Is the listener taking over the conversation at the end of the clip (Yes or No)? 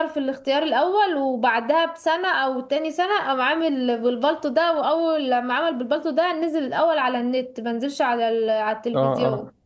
Yes